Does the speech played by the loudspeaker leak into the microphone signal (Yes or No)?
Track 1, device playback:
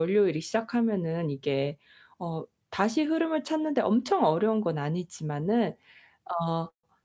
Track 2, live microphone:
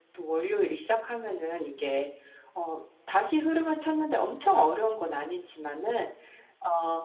Yes